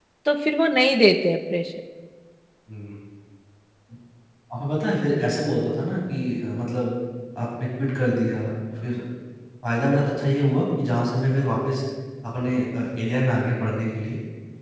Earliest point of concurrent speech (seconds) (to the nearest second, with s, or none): none